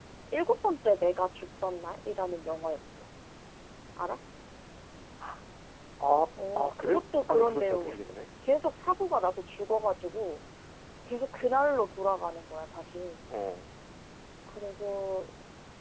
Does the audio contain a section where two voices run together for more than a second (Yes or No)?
Yes